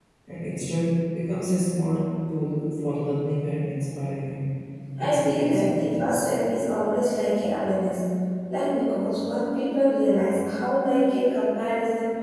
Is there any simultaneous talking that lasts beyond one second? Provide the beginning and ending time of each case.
5.0-6.2

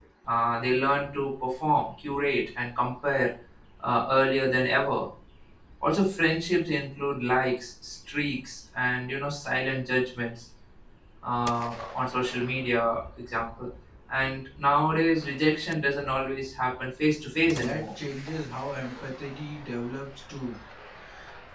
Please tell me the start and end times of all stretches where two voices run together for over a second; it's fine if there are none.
none

